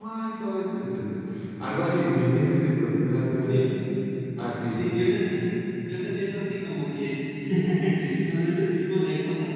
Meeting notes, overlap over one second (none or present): none